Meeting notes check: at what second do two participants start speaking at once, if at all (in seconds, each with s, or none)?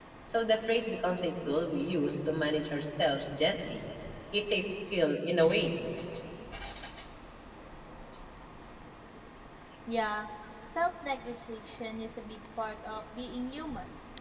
none